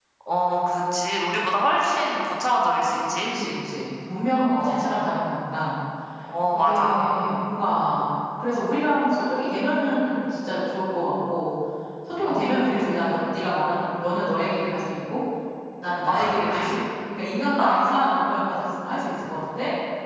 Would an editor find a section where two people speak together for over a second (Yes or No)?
No